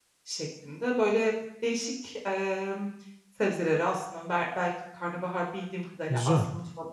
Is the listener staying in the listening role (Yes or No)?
Yes